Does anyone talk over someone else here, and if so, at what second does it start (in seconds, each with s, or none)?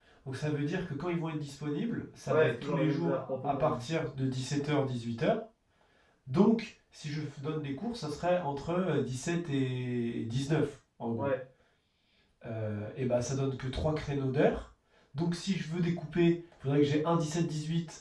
2.3 s